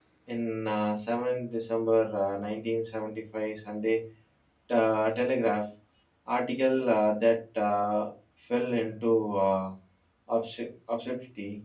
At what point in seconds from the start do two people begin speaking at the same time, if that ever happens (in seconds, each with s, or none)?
none